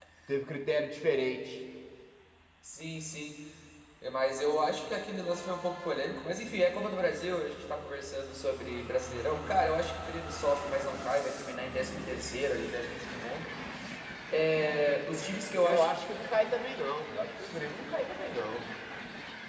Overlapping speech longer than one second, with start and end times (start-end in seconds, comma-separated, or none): none